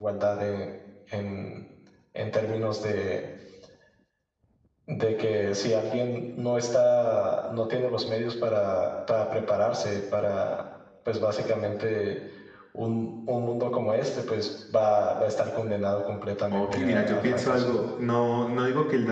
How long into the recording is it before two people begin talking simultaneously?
16.5 s

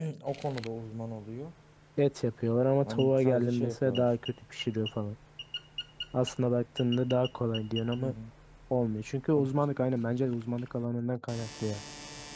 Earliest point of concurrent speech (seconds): 2.8 s

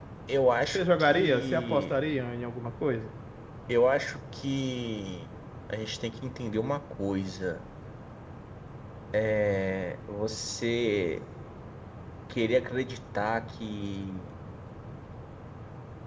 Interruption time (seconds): 0.7 s

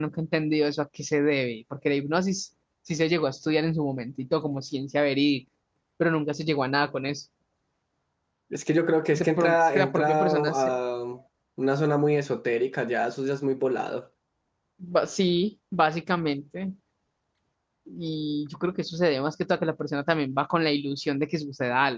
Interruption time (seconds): 9.2 s

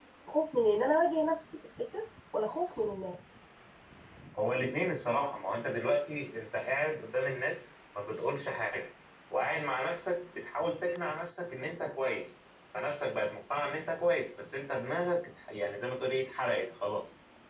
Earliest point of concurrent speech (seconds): none

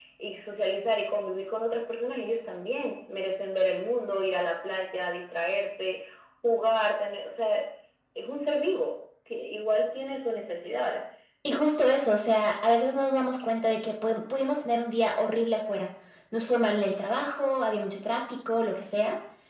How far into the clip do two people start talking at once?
none

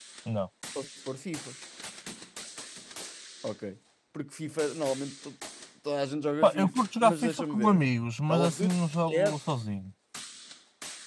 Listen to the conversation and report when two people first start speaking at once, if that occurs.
6.4 s

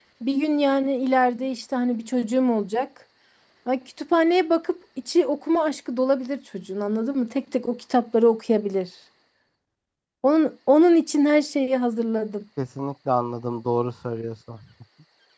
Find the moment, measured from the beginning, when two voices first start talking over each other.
none

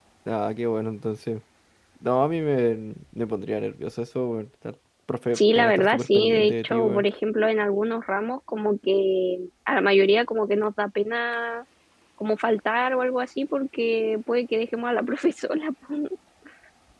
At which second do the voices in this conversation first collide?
5.3 s

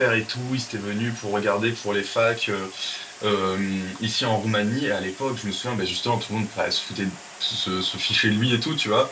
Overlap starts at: none

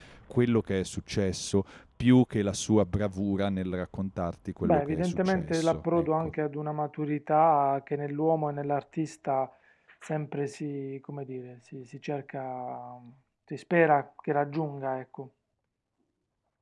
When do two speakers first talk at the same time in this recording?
4.6 s

